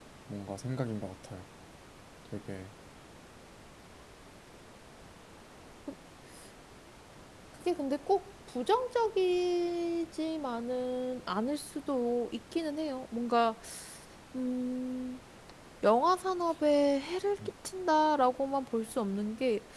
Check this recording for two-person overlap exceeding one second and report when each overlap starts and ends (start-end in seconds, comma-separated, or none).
none